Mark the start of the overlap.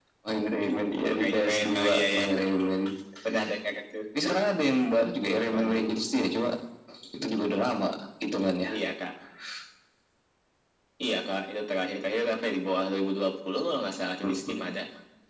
1 s

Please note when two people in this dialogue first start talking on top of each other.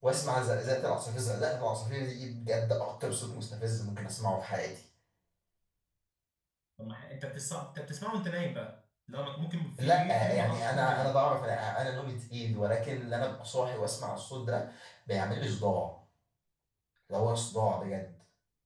10 s

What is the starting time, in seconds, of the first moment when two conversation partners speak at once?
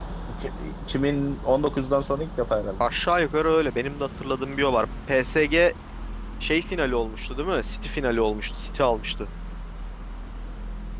none

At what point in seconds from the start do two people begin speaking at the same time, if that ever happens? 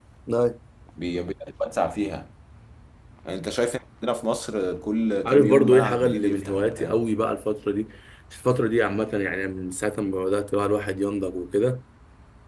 5 s

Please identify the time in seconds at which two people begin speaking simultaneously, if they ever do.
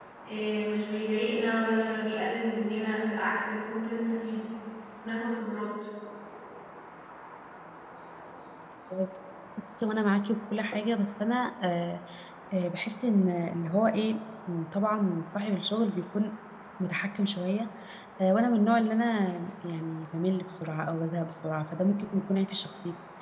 none

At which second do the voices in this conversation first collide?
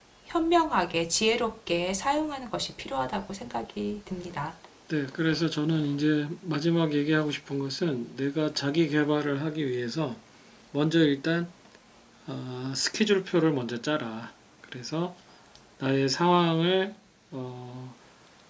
none

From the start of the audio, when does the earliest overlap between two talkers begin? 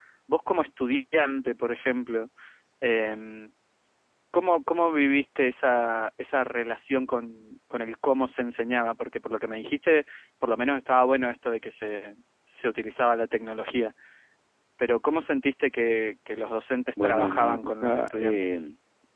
17 s

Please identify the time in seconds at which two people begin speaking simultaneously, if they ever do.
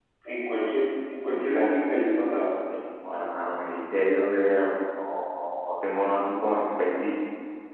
1 s

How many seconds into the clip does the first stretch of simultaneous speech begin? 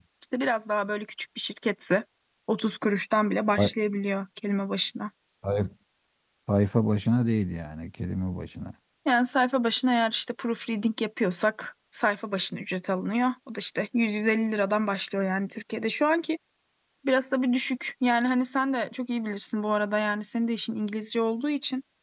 none

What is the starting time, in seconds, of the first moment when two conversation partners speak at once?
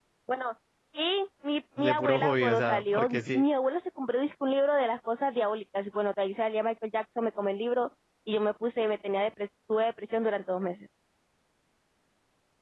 2 s

